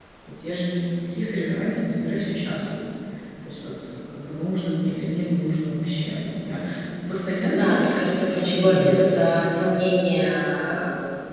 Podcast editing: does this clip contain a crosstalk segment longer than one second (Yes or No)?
Yes